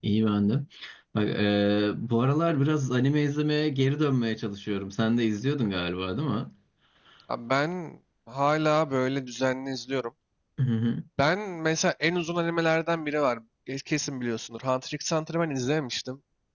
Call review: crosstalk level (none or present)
none